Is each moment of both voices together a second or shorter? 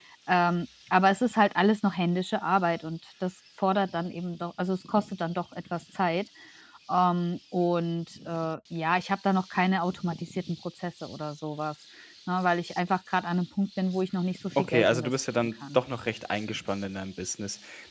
No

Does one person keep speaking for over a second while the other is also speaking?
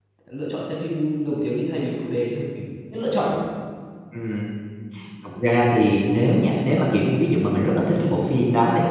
No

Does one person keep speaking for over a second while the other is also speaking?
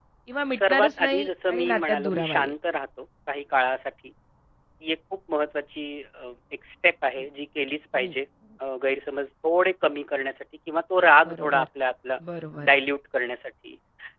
Yes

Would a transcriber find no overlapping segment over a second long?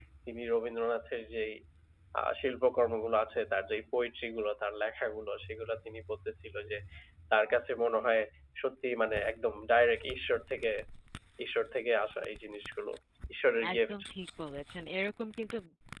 Yes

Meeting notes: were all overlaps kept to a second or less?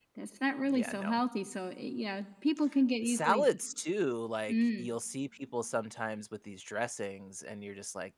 Yes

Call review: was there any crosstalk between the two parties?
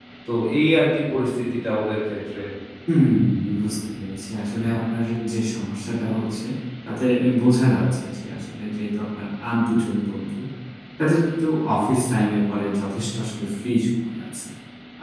No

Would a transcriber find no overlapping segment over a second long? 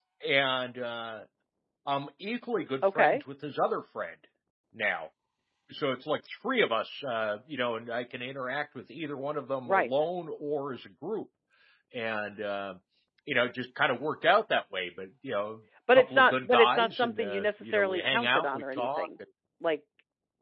No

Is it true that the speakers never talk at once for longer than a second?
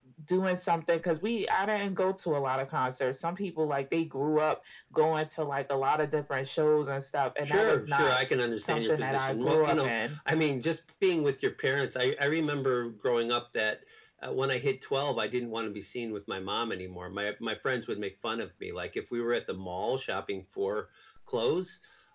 No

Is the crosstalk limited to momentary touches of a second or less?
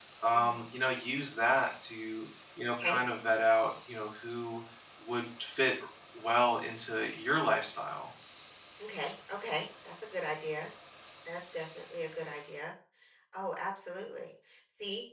Yes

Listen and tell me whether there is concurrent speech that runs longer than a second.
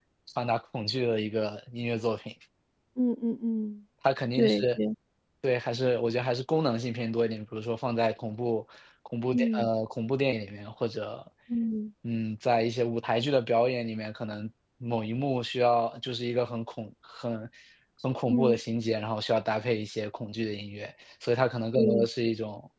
No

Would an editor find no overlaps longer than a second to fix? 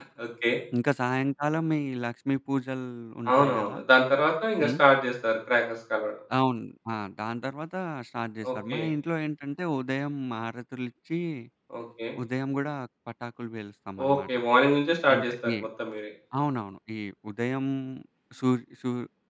Yes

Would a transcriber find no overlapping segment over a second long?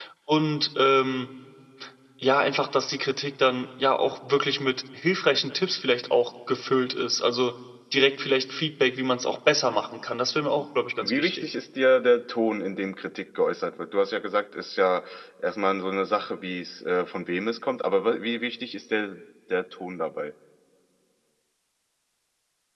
Yes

